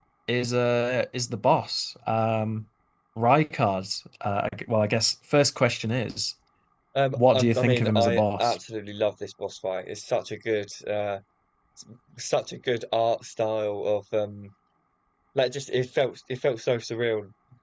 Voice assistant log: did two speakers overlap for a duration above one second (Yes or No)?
Yes